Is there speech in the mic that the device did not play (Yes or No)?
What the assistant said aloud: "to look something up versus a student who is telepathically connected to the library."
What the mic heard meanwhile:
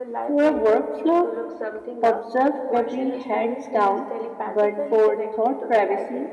Yes